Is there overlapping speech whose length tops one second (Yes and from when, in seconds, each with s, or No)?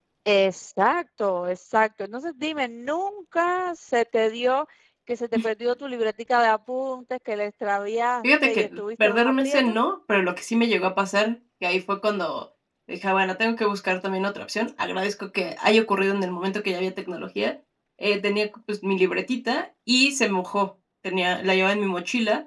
Yes, from 8.2 s